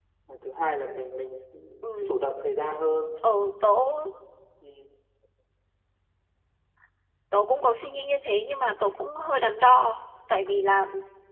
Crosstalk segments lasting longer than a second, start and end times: none

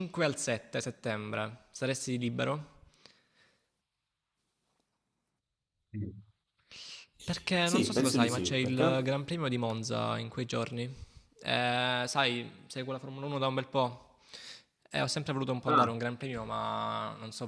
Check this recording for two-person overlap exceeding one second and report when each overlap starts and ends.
7.7-9.1

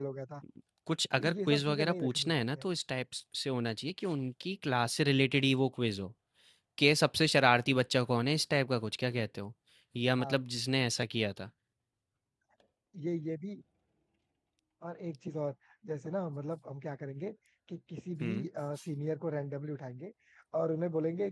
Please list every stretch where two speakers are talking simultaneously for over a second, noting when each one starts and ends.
1.2-2.6

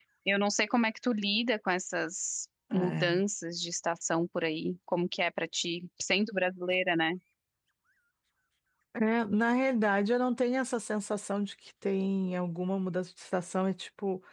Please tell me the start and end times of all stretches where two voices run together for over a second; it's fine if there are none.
none

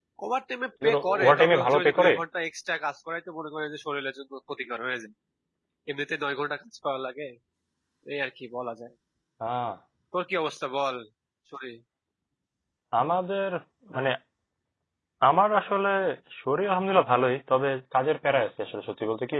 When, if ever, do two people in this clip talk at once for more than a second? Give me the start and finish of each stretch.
0.8-2.1

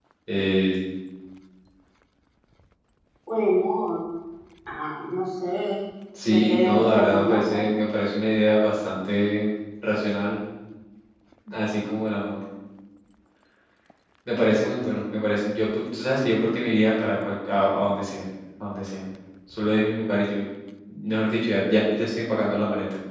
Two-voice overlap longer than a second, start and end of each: 6.2-7.6

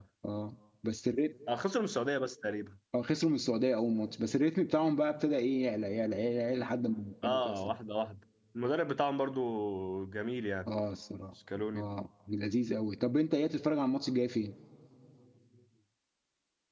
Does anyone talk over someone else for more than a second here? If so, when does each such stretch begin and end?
none

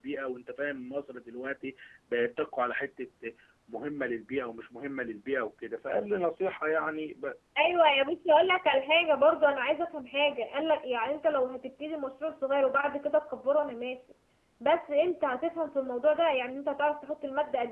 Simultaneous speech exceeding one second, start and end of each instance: none

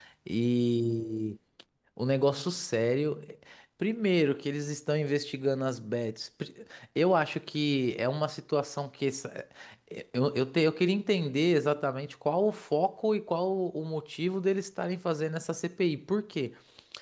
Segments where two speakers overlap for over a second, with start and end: none

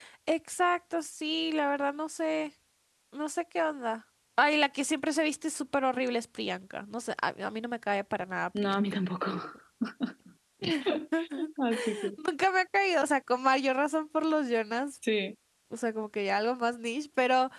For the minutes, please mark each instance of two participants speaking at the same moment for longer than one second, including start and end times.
none

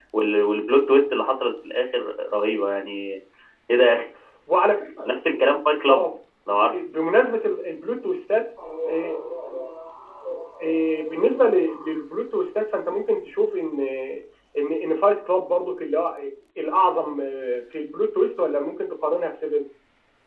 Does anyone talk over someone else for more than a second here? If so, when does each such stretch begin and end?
none

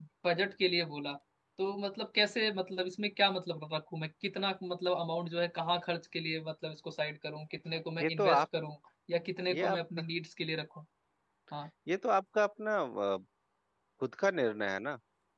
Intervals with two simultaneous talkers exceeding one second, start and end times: none

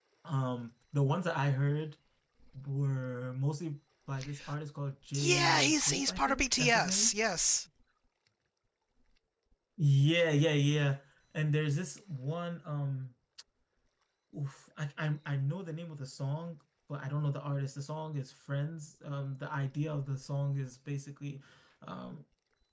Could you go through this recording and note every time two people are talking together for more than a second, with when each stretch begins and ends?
5.1-7.1

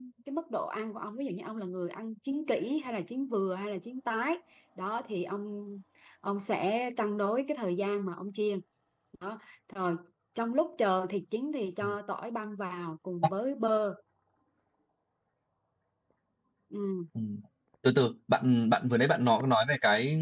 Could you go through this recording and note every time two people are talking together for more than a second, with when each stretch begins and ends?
none

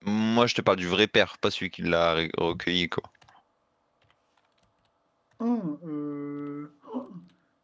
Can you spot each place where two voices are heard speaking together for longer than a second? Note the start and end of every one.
none

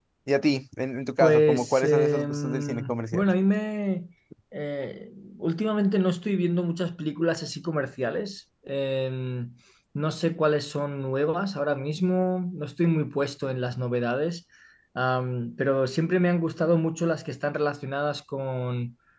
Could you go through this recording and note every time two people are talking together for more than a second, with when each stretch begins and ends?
1.2-3.2

